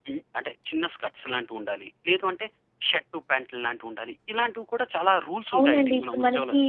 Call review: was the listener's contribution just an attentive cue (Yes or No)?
No